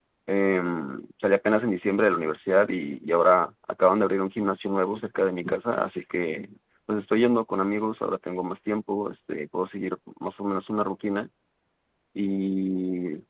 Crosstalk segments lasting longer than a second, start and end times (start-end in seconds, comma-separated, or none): none